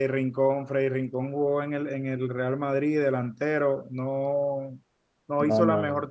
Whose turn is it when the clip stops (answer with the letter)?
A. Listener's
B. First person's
B